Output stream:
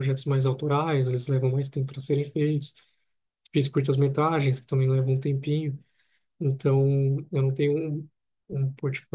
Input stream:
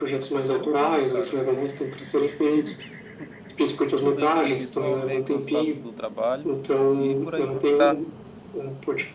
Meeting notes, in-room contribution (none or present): present